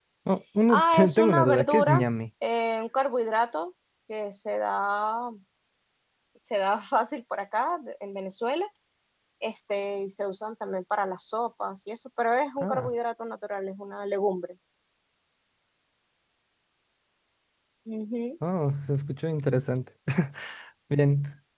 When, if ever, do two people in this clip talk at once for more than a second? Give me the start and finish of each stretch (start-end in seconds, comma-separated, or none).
0.7-2.0